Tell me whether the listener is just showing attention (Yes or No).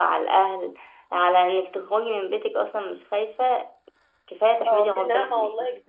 No